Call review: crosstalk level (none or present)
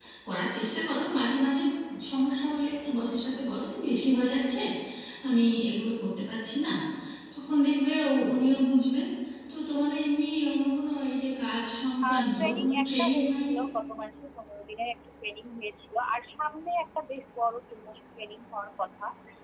present